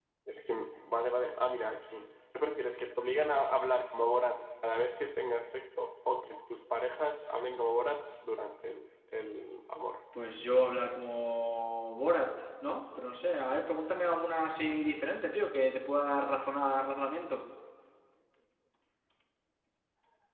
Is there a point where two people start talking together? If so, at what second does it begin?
none

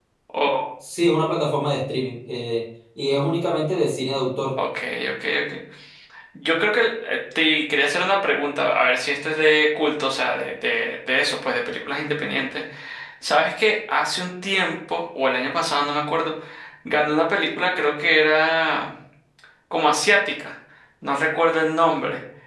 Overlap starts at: none

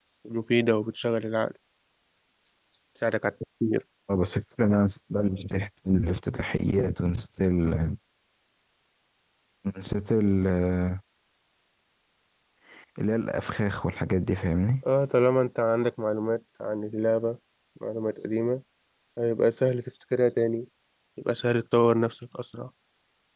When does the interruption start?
none

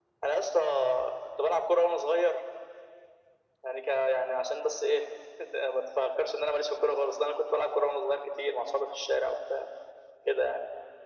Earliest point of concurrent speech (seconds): none

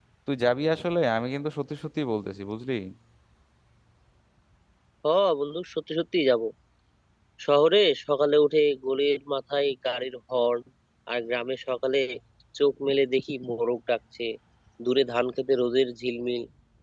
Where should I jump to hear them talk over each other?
none

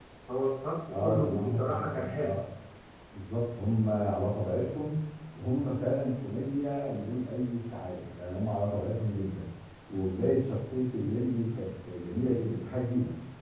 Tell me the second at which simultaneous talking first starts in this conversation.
1.0 s

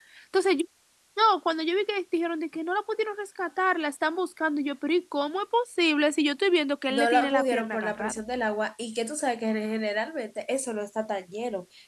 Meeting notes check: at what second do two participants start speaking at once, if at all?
6.9 s

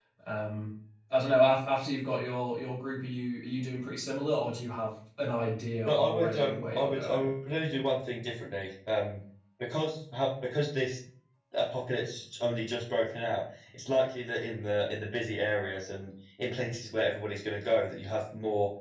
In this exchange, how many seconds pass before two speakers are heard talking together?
5.9 s

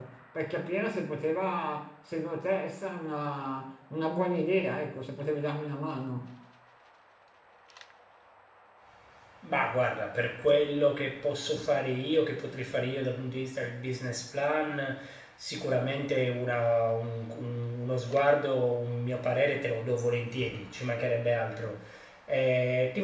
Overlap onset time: none

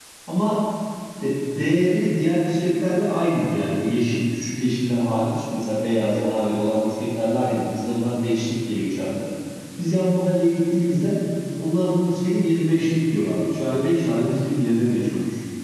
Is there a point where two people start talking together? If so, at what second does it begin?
none

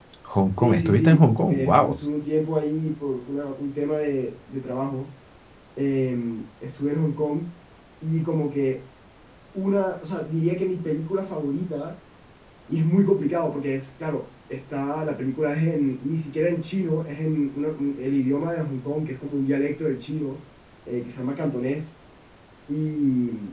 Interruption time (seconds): 0.6 s

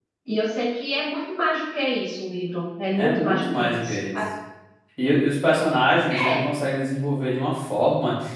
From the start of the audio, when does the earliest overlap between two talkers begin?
3.0 s

